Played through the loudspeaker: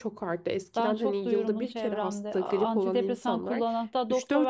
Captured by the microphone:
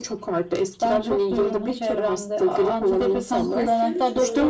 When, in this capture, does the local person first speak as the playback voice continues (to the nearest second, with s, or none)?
2 s